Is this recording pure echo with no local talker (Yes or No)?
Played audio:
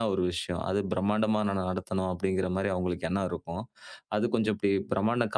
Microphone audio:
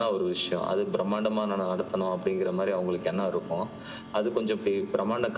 Yes